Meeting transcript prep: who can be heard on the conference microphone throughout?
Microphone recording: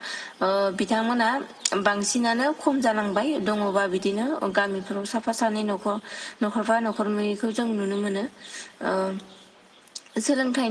echo only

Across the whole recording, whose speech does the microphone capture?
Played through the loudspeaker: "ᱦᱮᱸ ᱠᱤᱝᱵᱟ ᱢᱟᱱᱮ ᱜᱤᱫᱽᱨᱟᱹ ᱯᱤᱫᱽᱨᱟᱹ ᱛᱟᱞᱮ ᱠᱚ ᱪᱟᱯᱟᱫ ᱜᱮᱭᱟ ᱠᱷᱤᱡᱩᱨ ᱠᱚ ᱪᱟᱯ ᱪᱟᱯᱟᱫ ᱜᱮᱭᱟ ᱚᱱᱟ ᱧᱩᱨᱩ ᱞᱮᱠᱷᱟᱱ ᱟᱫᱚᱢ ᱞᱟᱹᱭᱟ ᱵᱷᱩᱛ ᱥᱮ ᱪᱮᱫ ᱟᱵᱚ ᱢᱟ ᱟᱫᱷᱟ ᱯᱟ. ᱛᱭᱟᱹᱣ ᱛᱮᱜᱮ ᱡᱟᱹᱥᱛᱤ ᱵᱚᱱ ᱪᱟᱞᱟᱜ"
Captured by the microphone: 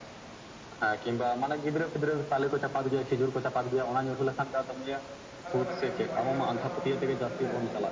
both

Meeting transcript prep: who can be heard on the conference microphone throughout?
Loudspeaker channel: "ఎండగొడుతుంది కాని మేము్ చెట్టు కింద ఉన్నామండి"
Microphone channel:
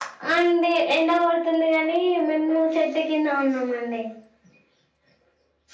echo only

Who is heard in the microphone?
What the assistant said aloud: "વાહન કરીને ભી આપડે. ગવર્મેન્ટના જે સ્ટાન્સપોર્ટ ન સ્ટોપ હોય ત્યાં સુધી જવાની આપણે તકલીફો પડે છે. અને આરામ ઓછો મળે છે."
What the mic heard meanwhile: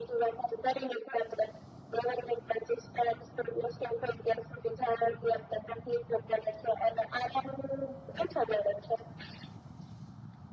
echo only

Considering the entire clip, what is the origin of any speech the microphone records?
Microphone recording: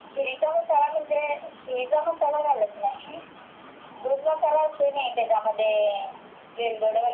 echo only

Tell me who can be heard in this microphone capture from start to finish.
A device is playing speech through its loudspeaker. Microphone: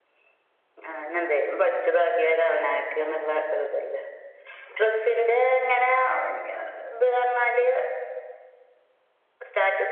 echo only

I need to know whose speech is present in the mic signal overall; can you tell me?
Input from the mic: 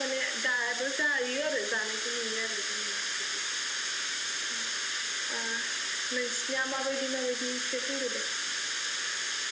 echo only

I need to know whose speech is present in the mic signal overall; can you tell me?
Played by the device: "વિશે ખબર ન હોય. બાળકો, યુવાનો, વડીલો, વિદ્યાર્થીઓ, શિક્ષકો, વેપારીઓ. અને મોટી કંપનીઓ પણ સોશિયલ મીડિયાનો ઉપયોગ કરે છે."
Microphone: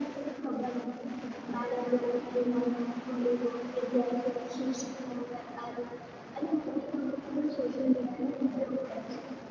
echo only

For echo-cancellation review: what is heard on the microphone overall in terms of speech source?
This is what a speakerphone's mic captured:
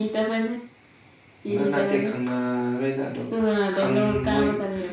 both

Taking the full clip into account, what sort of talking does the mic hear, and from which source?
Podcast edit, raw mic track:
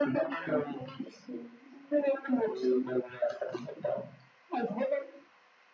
echo only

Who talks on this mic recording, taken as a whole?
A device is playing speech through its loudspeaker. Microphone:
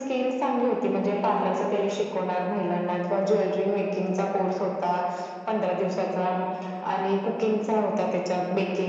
echo only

